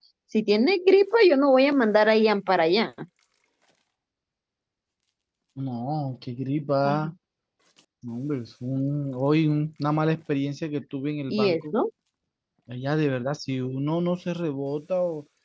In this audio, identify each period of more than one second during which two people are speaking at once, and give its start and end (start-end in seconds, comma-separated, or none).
none